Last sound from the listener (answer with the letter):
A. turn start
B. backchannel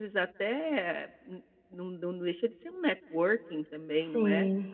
B